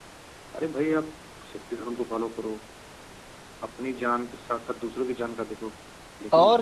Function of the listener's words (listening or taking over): taking over